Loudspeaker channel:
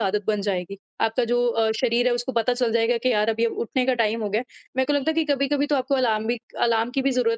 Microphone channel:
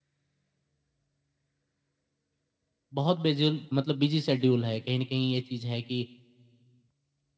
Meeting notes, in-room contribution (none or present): present